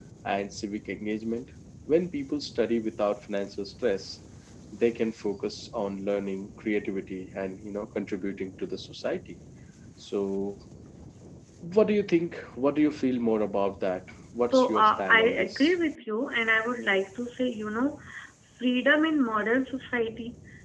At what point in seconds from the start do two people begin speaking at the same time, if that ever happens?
14.5 s

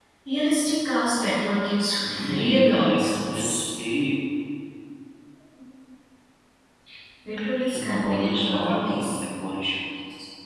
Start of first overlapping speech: 2.0 s

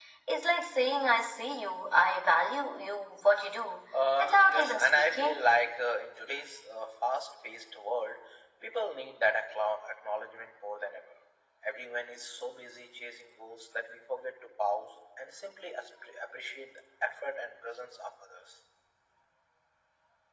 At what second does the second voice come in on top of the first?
4.2 s

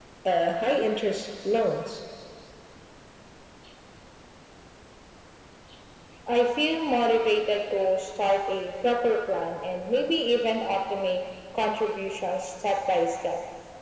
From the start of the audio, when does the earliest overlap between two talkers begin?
none

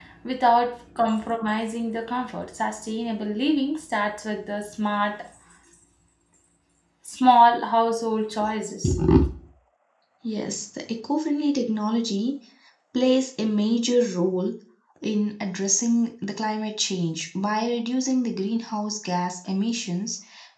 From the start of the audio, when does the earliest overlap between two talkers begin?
none

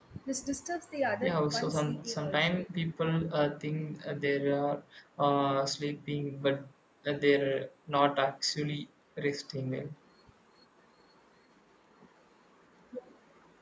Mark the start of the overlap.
1.3 s

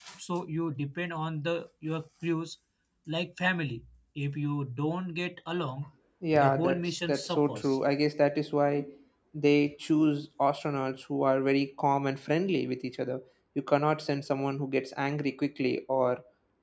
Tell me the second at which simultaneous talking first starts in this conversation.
6.4 s

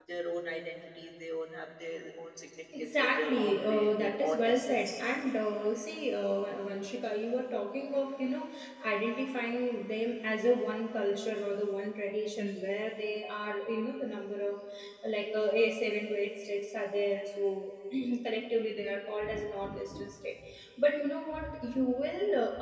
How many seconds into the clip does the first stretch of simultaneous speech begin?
2.7 s

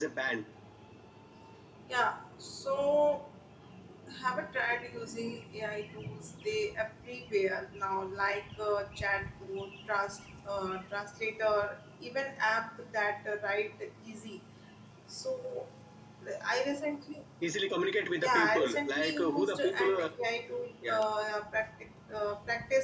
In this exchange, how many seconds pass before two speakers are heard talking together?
18.2 s

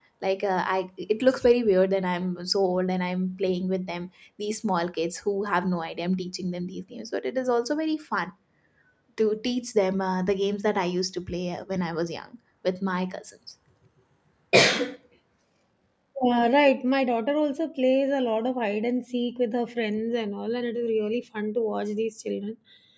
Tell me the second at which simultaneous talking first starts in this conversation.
none

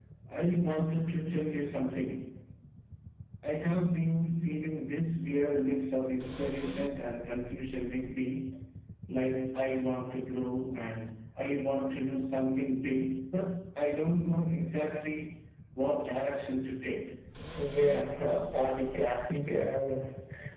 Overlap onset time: none

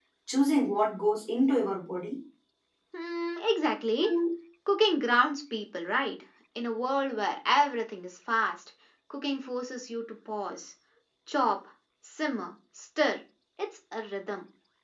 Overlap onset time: none

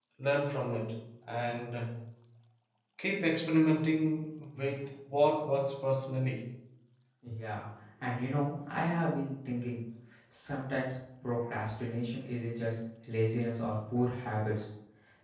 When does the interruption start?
none

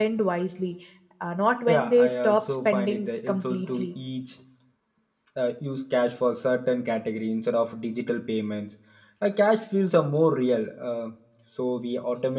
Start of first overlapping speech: 1.7 s

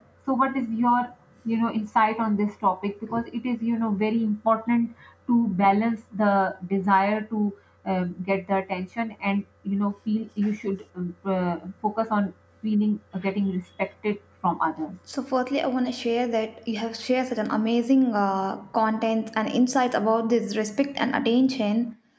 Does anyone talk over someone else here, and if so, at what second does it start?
none

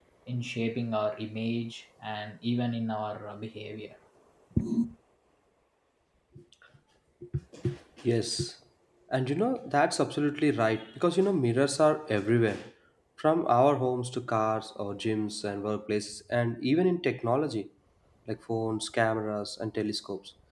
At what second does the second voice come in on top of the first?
none

